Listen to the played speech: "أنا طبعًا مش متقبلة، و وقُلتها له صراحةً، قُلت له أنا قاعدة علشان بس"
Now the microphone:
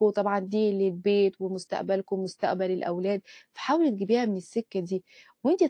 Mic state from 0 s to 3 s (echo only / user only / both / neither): user only